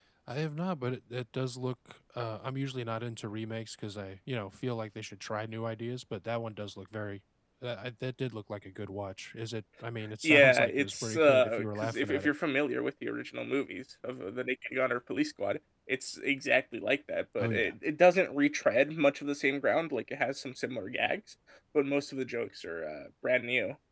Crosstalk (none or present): present